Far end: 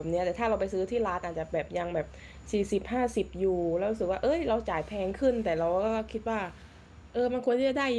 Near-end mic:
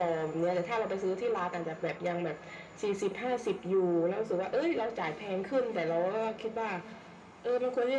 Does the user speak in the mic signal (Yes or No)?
No